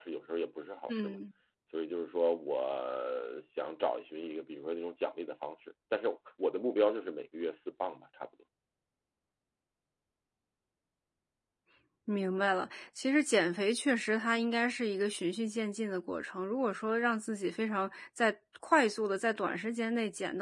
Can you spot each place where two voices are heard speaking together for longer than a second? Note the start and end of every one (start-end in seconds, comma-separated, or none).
none